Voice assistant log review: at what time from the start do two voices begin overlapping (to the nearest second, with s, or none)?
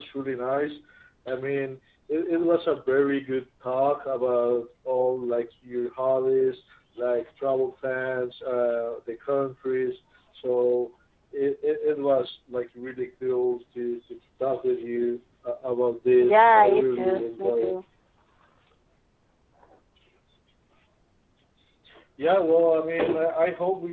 16 s